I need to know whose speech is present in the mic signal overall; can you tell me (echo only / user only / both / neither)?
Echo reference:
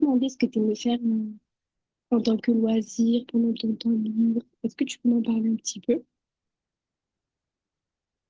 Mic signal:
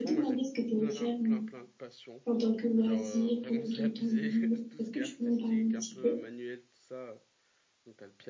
both